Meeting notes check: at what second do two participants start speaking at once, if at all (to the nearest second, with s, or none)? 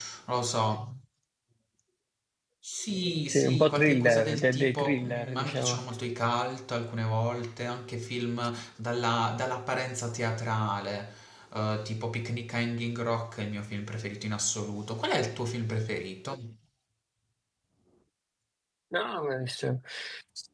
3 s